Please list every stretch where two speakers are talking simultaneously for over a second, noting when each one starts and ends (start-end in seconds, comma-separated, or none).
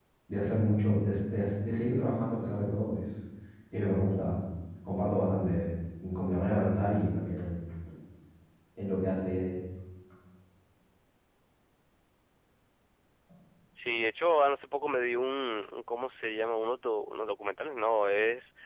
none